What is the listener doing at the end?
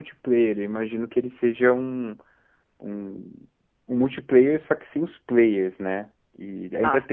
listening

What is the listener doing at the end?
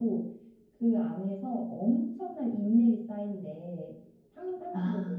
listening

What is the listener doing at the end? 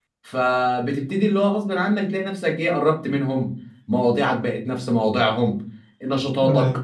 listening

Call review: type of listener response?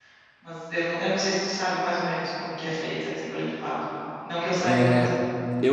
taking over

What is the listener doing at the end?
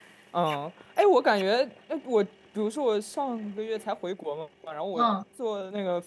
listening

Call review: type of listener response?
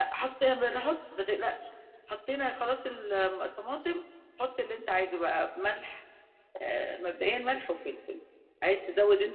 listening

